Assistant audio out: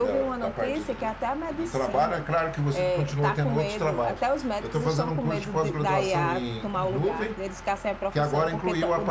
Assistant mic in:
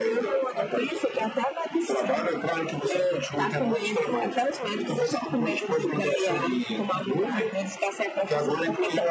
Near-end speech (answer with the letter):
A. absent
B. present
A